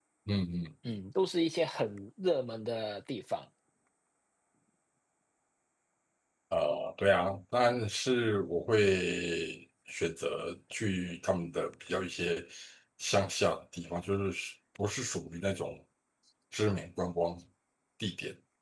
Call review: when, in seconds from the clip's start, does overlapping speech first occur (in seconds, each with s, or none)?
none